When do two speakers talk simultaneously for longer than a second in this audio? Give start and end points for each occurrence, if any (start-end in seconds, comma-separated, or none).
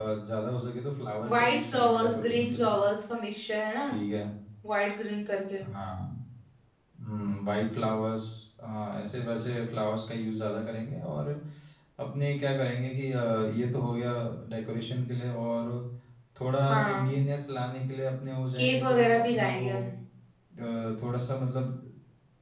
1.3-2.7, 18.6-19.8